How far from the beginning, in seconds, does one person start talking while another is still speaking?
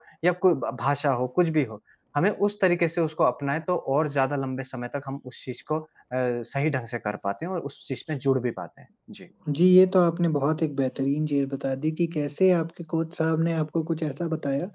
none

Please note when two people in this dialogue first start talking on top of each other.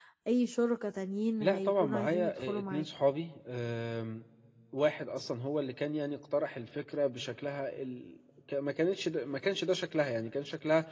1 s

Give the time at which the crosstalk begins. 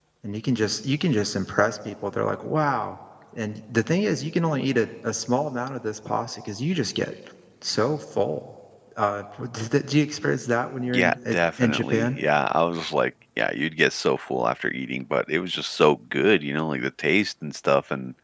11 s

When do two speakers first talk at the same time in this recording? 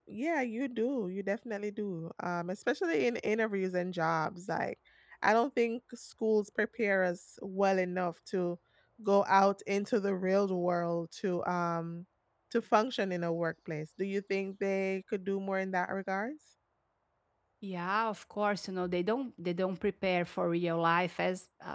none

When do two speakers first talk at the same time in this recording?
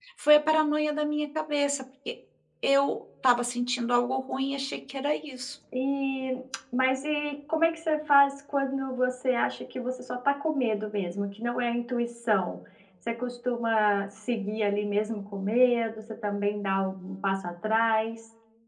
none

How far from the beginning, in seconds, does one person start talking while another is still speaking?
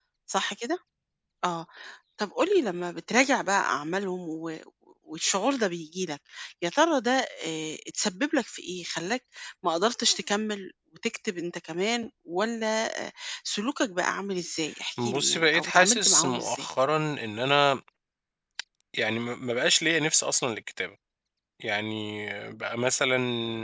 15 s

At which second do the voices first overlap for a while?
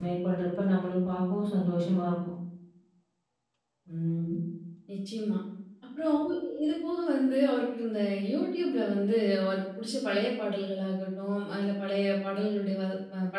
none

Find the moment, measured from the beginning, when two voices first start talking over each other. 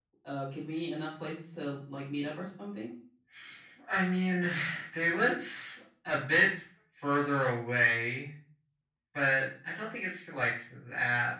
none

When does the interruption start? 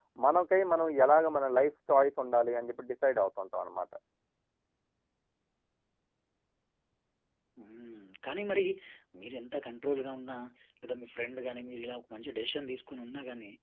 none

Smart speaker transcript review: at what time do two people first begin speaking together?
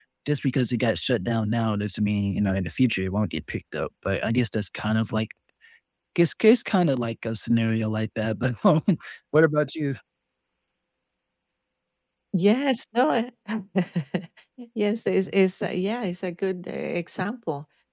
none

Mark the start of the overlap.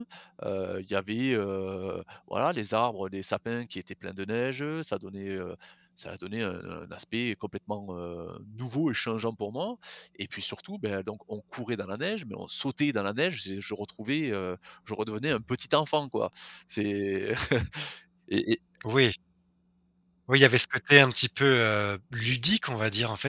none

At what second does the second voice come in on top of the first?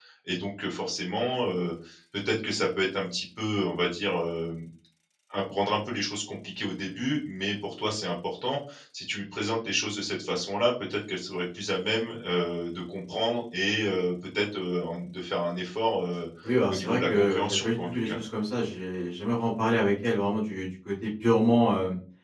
17 s

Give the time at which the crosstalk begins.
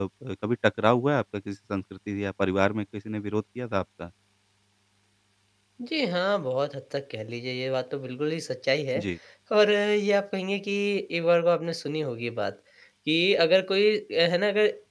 none

